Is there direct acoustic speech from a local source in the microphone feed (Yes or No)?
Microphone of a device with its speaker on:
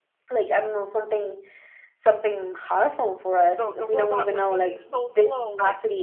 Yes